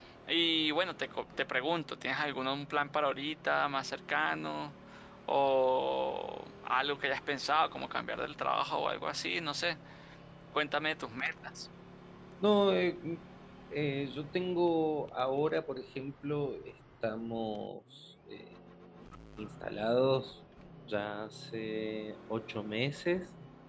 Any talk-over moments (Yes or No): No